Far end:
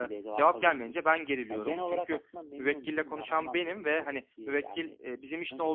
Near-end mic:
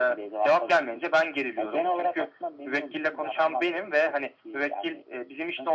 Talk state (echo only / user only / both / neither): echo only